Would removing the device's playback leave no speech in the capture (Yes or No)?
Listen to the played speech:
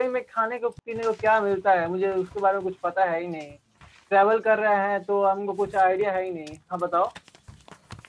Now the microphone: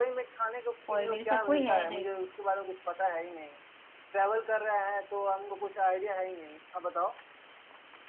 No